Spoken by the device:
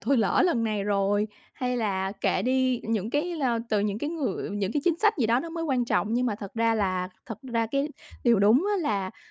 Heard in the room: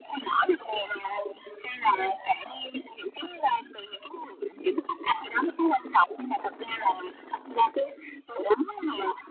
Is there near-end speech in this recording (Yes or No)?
No